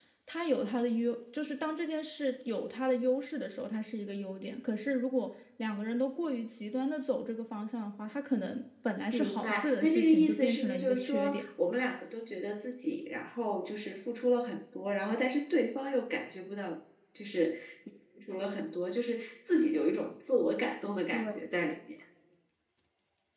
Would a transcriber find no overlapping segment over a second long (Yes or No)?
No